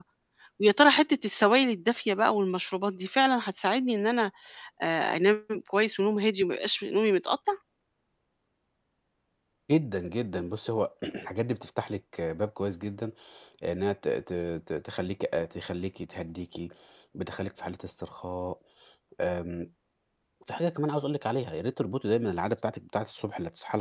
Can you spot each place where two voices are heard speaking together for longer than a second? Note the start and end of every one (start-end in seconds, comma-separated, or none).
none